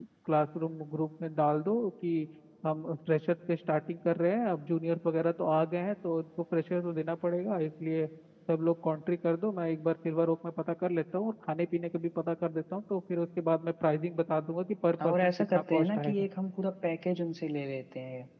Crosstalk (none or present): present